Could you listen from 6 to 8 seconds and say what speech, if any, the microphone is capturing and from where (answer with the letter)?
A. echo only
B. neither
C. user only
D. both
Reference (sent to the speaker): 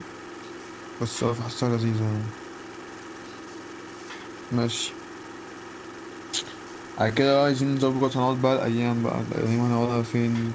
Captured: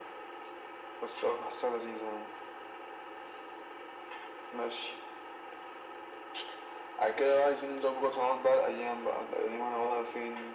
A